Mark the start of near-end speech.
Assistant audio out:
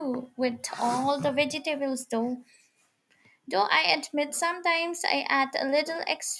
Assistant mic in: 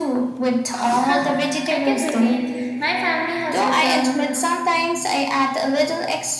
1.1 s

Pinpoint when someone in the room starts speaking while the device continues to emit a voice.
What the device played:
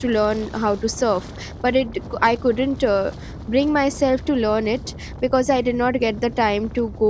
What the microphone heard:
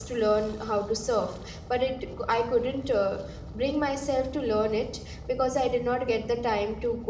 none

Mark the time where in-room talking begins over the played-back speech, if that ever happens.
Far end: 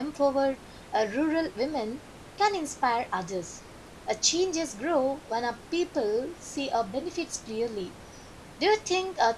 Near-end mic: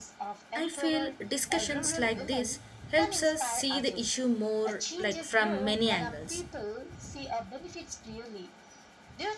0.5 s

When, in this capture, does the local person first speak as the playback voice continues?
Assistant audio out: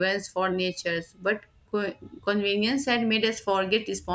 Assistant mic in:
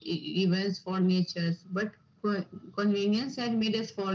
none

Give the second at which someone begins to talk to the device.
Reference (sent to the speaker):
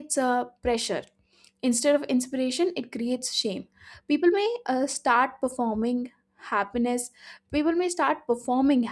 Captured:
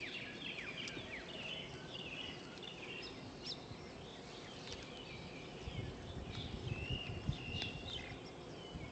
none

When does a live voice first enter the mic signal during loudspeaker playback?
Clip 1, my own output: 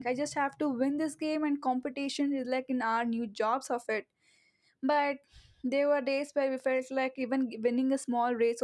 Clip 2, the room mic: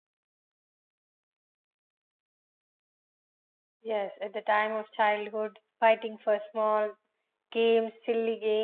3.8 s

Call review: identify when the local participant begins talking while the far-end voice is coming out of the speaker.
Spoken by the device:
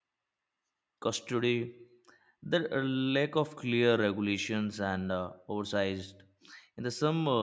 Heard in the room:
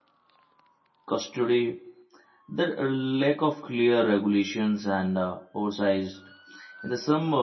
none

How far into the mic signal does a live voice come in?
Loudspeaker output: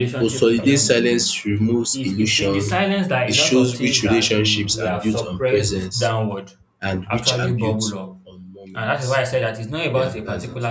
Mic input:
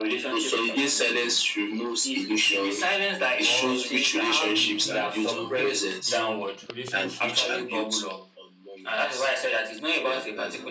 3.4 s

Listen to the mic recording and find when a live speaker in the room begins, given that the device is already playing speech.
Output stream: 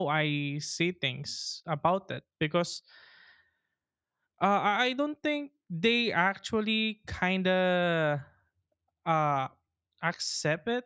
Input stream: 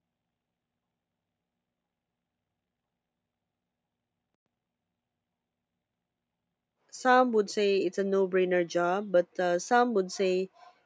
6.9 s

